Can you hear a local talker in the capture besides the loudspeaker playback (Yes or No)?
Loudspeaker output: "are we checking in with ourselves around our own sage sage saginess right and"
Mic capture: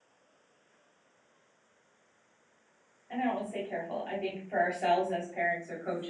Yes